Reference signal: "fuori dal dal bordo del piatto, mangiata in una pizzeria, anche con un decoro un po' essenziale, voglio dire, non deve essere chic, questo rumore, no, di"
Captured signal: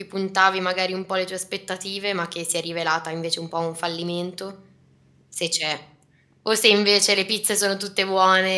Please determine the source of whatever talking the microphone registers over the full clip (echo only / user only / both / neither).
user only